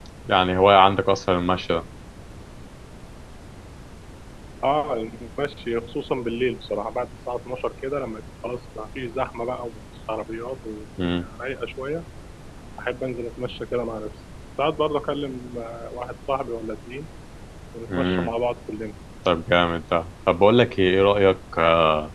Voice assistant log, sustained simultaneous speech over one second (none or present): none